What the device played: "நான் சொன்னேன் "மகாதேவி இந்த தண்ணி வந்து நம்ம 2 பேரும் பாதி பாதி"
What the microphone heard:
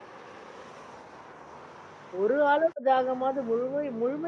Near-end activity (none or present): present